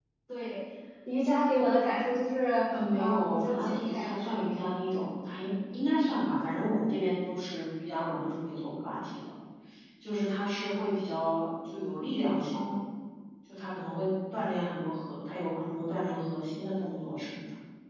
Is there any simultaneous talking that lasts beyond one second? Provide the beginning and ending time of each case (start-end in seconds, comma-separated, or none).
3.0-4.5